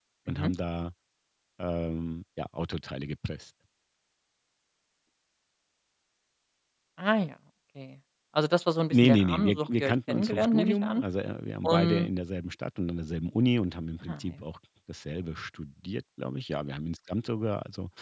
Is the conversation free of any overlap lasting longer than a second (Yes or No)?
No